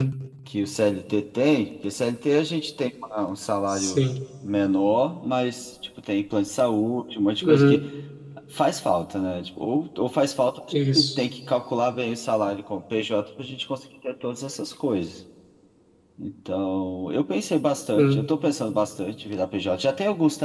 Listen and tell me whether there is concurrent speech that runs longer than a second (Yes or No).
No